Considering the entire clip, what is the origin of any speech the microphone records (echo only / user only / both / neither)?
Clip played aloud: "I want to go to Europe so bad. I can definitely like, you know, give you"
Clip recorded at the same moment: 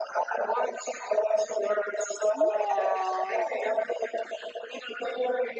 both